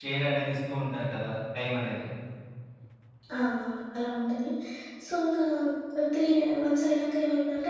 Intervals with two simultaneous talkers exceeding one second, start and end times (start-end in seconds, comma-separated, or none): none